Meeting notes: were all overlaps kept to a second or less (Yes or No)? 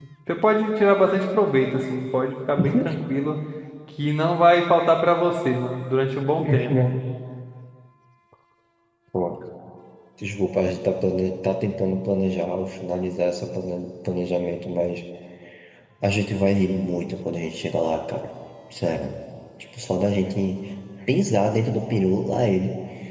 Yes